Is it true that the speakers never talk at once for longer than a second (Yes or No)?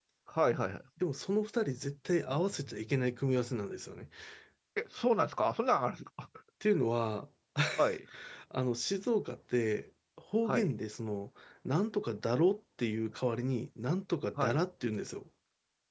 Yes